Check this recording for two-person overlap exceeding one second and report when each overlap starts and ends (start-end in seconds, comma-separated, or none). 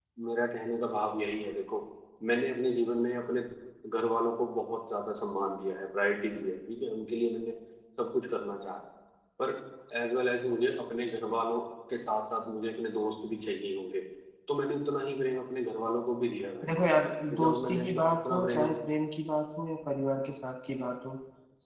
17.3-18.6